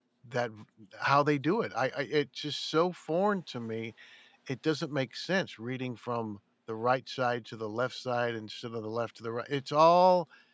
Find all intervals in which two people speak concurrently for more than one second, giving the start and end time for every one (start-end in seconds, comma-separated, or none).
none